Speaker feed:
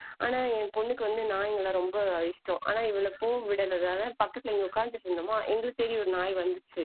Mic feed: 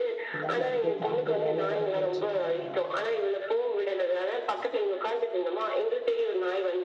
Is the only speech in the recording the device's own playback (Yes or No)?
No